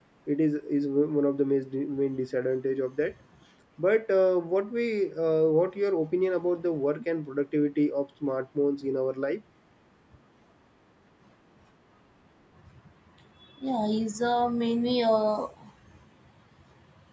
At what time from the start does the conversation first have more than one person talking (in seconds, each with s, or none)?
none